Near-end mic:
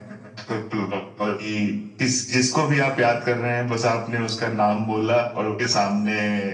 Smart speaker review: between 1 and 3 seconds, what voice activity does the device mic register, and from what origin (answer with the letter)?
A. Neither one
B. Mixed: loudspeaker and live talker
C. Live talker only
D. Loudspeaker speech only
D